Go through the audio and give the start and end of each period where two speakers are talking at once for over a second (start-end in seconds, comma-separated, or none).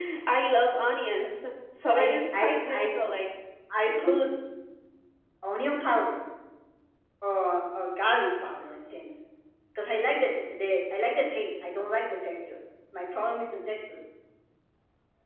1.9-3.1